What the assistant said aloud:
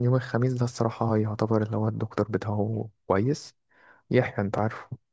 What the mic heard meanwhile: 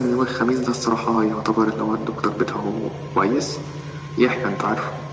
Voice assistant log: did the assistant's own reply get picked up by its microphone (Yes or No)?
Yes